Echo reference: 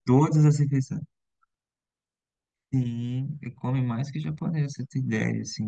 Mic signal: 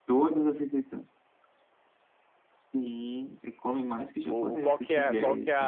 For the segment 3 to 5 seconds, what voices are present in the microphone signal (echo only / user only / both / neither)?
both